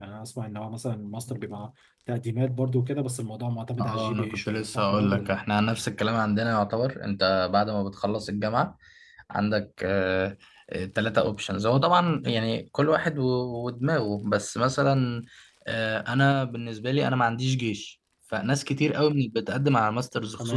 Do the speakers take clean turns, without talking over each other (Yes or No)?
No